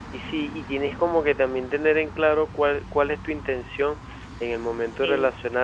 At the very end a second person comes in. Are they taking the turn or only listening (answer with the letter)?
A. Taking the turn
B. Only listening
B